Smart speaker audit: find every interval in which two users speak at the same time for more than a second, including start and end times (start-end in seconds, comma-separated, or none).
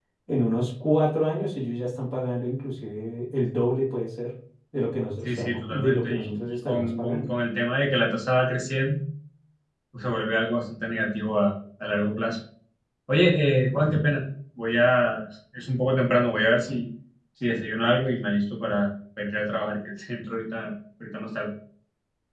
5.2-7.3